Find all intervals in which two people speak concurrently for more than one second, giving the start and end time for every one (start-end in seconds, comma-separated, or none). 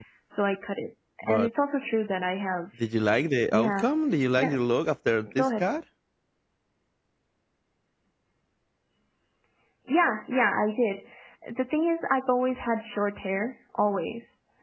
none